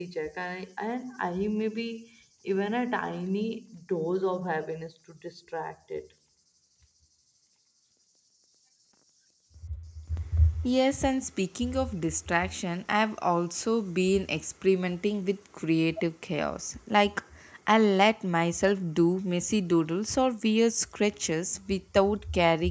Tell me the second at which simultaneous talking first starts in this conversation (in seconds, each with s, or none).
none